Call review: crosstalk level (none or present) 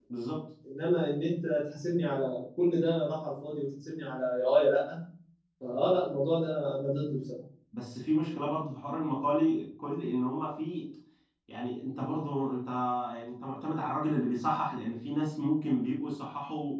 none